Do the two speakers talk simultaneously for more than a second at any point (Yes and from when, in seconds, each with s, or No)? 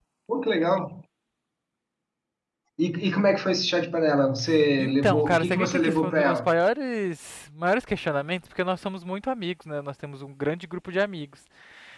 Yes, from 4.8 s